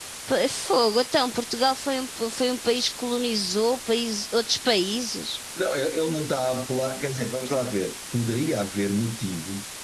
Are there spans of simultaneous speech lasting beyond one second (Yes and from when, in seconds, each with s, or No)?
No